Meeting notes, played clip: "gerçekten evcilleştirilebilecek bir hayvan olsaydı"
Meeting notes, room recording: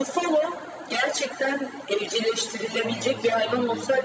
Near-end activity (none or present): present